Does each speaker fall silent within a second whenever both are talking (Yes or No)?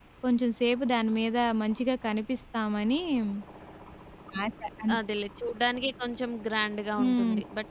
Yes